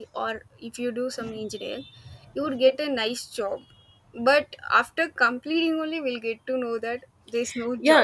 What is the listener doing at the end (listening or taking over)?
taking over